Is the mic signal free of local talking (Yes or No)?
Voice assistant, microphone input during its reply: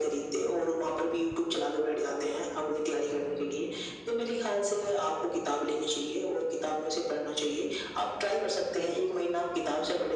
No